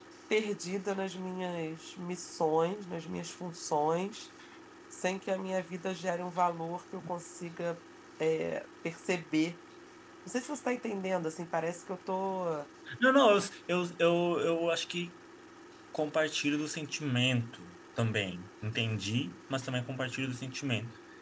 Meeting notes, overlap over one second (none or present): none